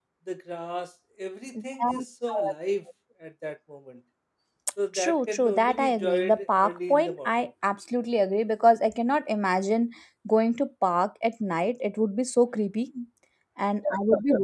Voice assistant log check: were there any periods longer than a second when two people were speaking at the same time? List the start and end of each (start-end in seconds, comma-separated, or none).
5.0-7.5